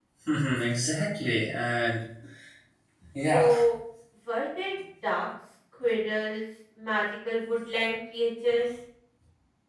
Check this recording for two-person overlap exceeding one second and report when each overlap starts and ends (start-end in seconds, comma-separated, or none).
none